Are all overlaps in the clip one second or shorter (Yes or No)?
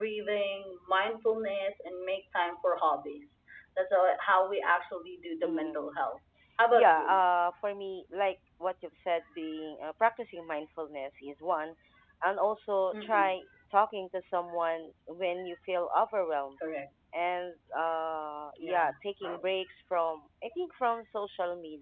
Yes